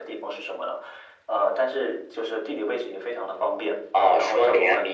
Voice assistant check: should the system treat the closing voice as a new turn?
Yes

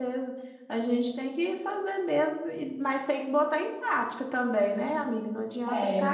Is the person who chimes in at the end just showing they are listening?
Yes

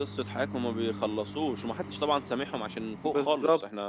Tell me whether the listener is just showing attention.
No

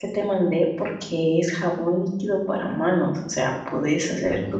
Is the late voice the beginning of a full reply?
No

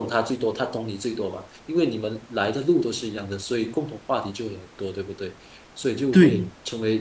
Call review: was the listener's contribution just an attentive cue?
Yes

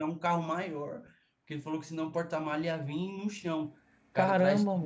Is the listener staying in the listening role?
Yes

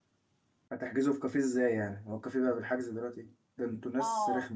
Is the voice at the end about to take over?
Yes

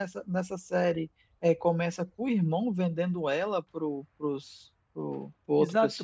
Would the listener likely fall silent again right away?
No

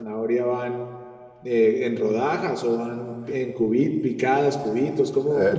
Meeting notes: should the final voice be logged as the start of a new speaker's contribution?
Yes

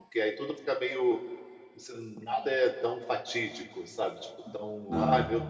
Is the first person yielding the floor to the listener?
No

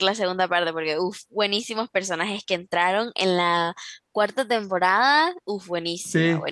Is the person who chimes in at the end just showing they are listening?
Yes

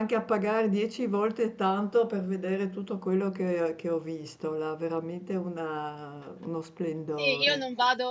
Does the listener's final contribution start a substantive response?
Yes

